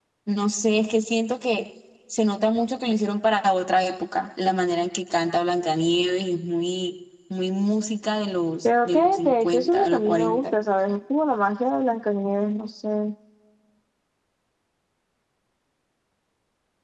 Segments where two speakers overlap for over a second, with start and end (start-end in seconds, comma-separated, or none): 8.6-10.5